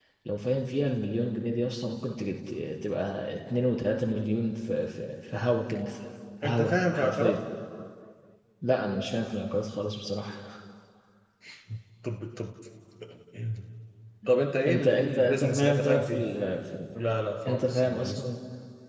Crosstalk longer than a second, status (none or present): present